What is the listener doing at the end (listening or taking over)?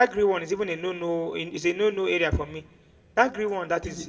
taking over